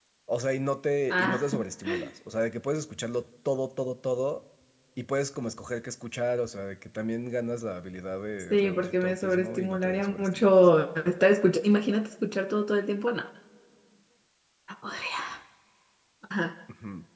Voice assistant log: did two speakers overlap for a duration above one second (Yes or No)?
Yes